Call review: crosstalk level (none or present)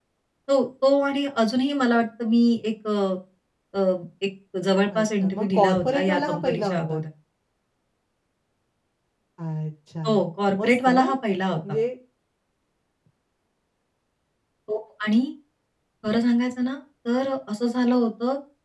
present